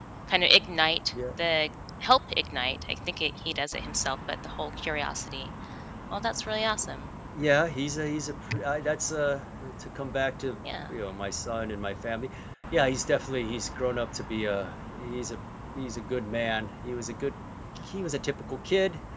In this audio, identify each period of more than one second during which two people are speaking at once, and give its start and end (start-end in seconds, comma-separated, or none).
none